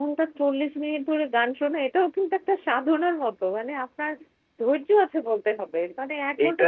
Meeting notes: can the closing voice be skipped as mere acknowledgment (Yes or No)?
Yes